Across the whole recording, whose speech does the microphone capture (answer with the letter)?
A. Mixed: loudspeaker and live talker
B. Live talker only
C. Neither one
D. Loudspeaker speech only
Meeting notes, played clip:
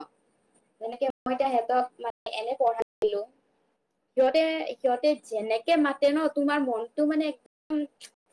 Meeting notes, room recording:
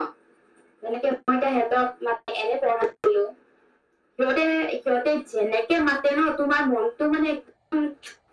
D